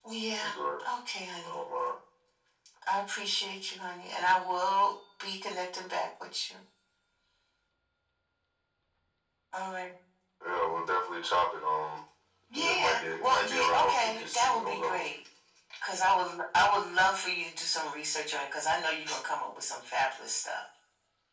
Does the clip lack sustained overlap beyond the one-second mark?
No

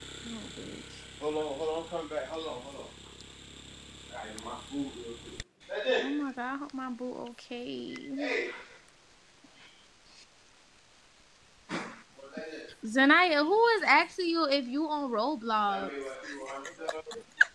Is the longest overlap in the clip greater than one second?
No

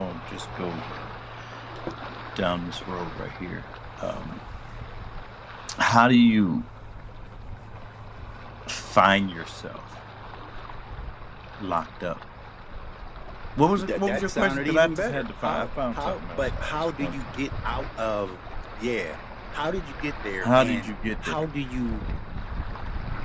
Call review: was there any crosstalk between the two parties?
Yes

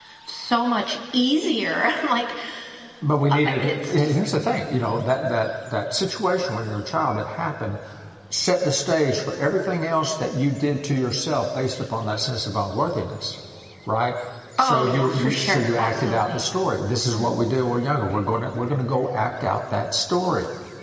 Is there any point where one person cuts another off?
Yes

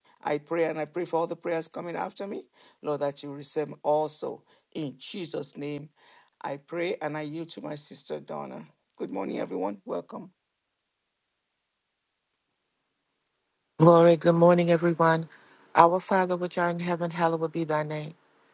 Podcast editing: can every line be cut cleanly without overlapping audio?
Yes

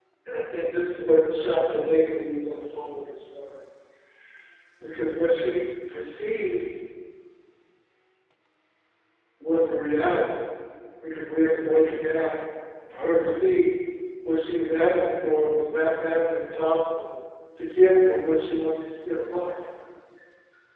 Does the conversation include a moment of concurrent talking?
No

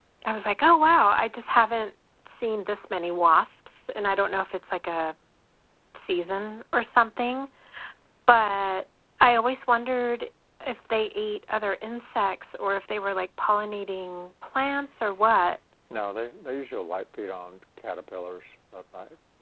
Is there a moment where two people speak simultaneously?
No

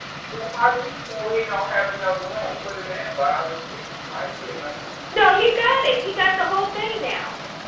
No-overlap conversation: Yes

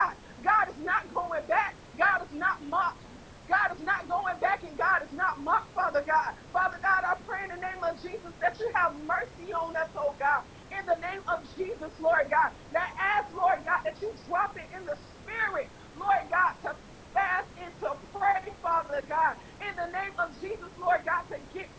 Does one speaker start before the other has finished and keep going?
No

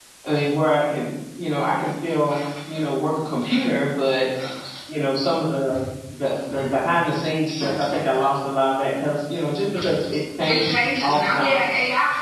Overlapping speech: Yes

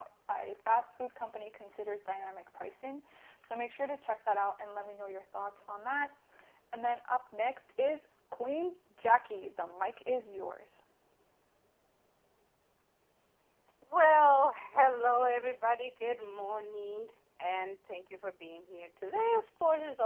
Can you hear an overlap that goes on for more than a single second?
No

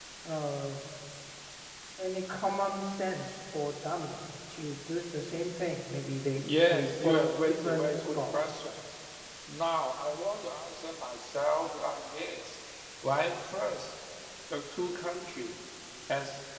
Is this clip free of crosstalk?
No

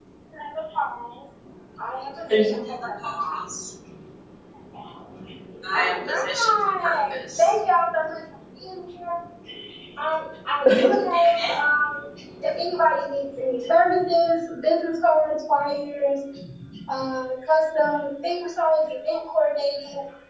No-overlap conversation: No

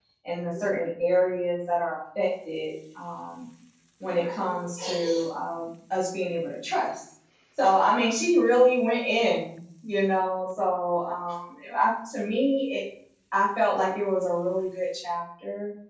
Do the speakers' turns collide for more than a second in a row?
No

